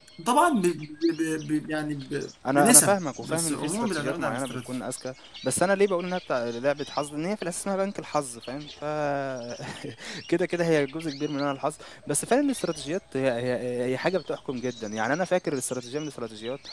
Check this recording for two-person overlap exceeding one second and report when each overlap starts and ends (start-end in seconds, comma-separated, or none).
2.5-4.8